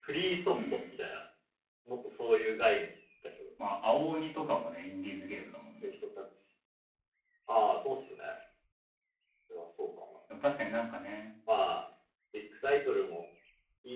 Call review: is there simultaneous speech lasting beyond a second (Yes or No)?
No